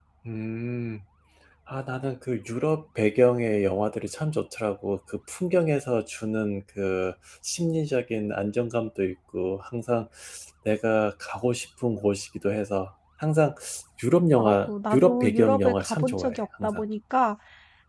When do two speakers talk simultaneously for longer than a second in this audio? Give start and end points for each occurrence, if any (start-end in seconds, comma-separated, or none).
14.4-16.8